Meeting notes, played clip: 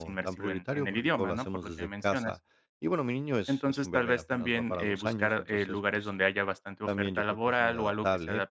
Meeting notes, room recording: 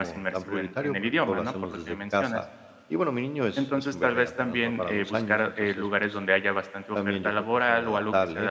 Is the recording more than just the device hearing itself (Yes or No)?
No